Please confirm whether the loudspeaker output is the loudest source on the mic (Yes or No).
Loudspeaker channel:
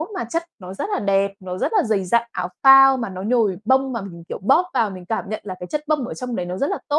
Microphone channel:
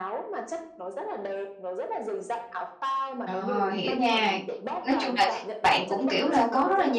No